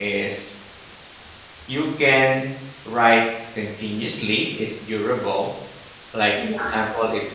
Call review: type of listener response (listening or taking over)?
listening